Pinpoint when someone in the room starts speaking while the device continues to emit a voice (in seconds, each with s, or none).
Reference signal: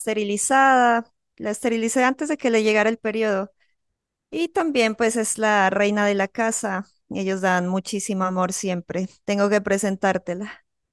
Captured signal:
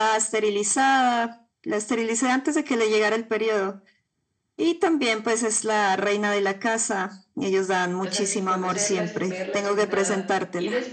8.0 s